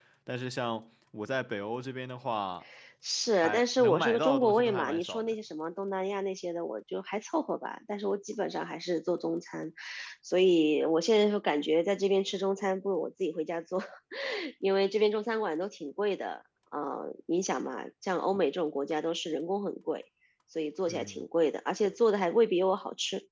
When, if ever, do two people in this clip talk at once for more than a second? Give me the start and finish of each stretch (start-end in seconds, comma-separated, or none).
3.4-5.3